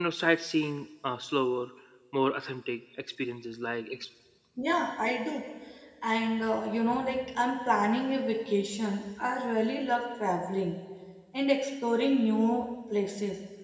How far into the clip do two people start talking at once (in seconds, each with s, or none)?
none